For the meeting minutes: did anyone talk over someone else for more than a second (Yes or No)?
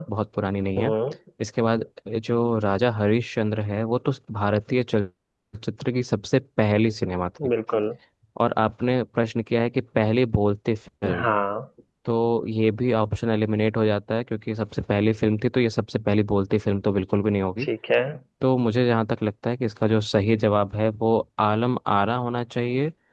No